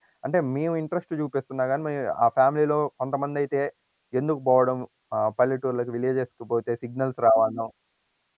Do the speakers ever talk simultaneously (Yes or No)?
No